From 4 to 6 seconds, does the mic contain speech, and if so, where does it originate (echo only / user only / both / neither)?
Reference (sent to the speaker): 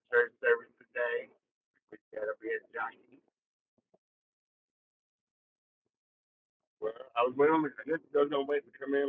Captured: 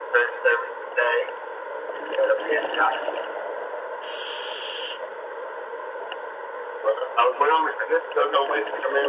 neither